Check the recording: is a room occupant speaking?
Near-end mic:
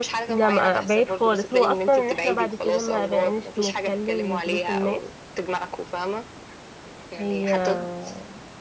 Yes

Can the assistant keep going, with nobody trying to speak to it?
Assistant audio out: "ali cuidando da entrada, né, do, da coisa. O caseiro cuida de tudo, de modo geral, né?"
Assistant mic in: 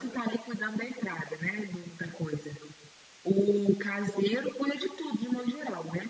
Yes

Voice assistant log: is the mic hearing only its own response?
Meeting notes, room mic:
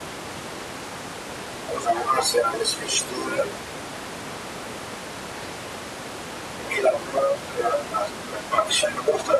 Yes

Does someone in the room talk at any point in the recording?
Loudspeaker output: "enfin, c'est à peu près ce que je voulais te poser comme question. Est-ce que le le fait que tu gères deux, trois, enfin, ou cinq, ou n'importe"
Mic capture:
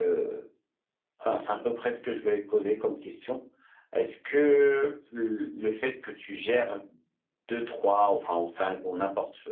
No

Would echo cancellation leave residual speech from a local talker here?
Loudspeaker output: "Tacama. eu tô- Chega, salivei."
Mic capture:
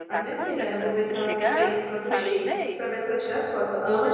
Yes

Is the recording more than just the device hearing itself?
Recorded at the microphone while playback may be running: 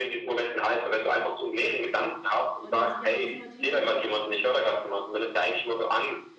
Yes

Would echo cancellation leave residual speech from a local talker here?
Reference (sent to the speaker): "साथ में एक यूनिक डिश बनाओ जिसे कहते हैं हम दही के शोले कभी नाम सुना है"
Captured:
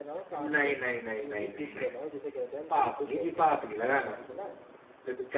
Yes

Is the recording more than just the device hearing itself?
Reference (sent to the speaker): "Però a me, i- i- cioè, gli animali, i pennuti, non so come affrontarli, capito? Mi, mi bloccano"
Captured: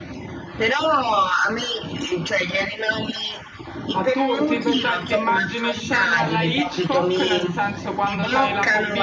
Yes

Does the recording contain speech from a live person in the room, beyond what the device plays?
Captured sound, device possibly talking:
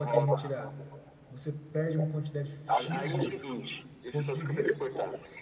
Yes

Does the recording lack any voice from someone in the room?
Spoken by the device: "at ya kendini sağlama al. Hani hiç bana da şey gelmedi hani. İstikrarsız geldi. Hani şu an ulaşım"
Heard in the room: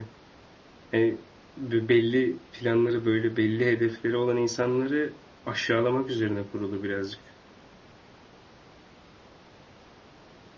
No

